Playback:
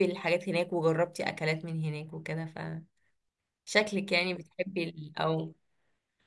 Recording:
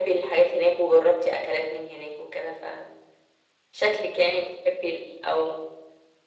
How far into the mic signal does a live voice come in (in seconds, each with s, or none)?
none